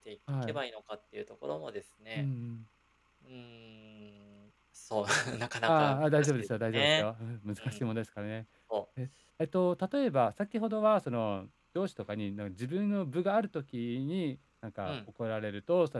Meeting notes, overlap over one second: present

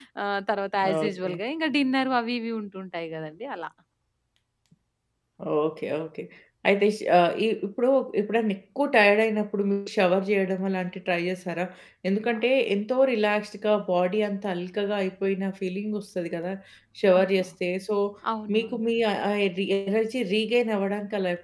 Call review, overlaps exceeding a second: none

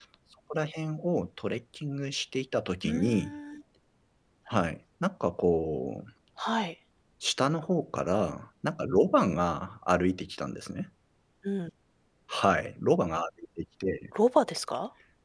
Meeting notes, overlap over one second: none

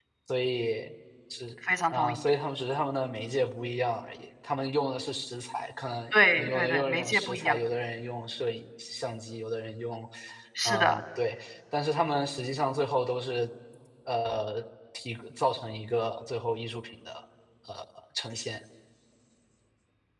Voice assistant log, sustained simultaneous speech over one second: present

